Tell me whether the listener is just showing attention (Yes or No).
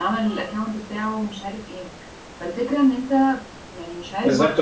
No